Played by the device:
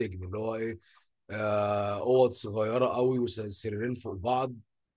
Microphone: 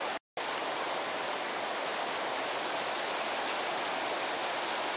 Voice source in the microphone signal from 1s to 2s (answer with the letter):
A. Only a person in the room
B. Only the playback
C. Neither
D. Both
C